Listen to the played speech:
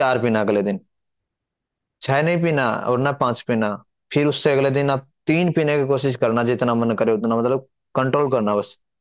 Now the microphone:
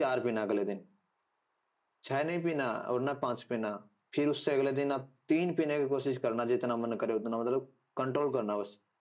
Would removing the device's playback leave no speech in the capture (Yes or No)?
Yes